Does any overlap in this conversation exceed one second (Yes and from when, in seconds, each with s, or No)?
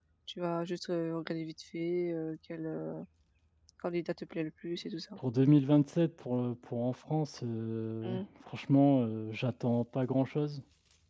No